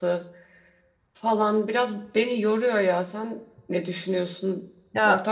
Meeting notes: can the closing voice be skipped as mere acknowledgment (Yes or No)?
No